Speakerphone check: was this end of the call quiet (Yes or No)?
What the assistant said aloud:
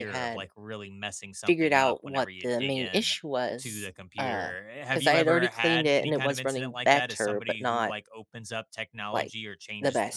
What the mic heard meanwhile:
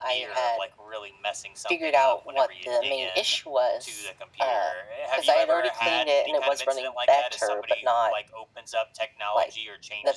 Yes